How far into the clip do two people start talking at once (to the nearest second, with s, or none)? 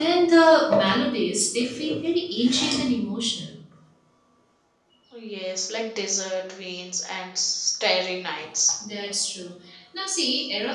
none